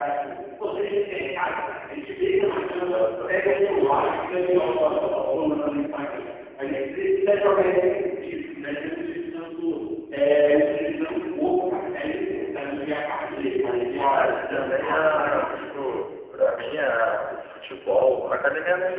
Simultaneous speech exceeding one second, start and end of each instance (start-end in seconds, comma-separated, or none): 14.1-15.6